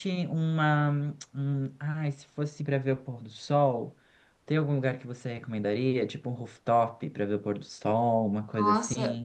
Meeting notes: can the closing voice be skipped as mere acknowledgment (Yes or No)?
No